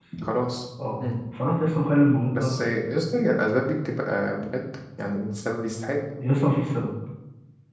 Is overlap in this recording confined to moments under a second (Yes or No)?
Yes